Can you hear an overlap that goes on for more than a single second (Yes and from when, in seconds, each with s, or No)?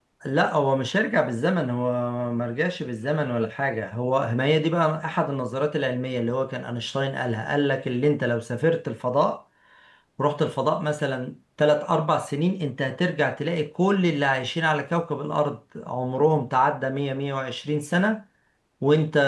No